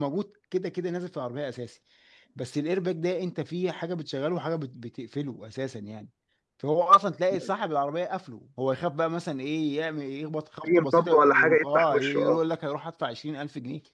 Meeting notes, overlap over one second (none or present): present